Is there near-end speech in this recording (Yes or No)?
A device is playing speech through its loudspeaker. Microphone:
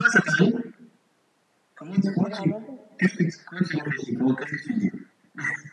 Yes